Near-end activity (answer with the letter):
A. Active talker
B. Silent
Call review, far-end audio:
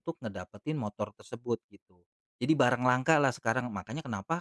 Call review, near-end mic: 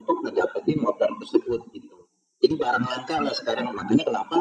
B